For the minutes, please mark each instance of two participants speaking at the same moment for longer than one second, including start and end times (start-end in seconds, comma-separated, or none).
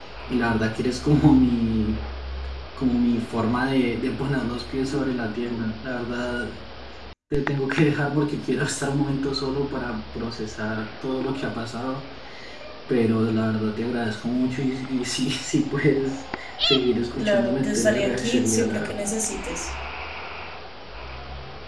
17.2-19.1